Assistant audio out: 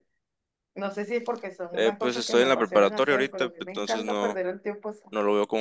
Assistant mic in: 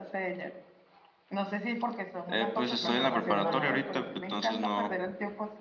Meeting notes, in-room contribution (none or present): present